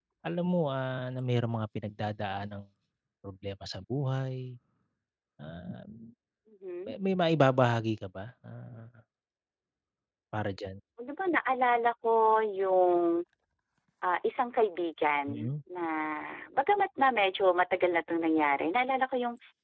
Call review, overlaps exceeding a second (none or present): none